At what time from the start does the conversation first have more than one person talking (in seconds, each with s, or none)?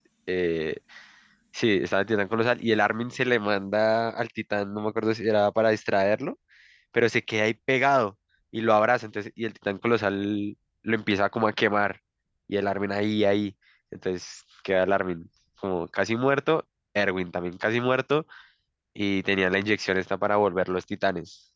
none